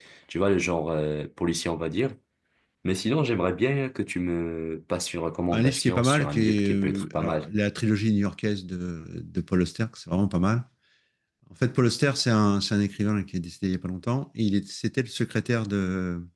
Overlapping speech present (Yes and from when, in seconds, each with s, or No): Yes, from 5.5 s